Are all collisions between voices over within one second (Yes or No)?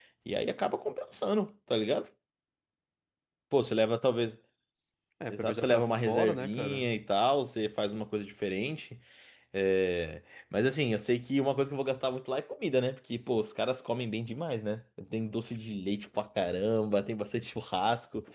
No